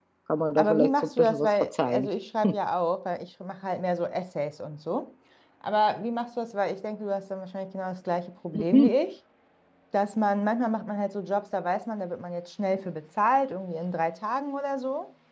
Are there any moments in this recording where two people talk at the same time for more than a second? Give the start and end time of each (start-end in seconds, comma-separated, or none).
0.6-2.1